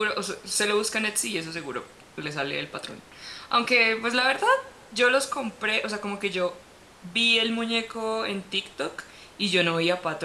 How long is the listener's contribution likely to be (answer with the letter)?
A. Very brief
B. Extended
A